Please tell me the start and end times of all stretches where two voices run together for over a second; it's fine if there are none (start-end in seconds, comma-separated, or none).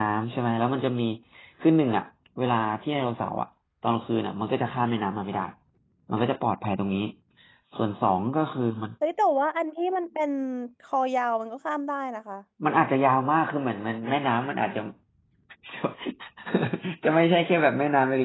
none